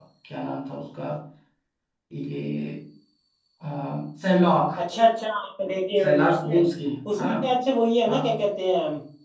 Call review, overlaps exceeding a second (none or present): none